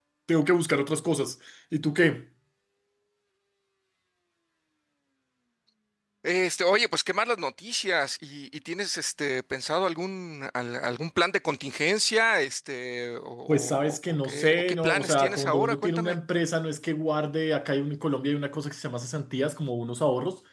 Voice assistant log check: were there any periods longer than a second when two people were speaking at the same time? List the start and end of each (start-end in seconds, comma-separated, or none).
13.5-16.2